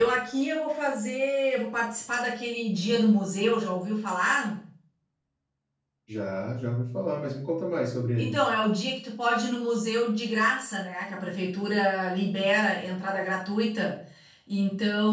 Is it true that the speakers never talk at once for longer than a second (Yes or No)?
Yes